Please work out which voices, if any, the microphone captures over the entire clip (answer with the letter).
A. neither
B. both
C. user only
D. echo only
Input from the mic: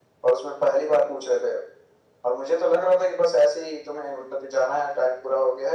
D